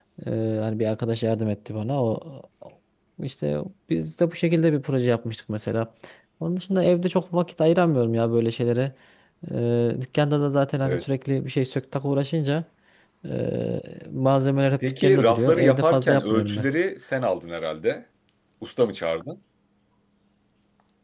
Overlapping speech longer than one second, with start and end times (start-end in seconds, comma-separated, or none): 15.0-16.7